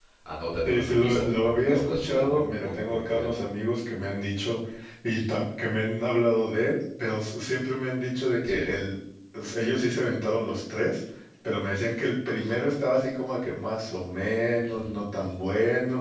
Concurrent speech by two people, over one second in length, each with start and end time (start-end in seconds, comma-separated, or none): 0.7-3.4